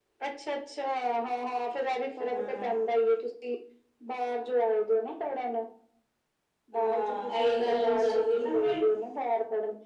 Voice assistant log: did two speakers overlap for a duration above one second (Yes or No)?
Yes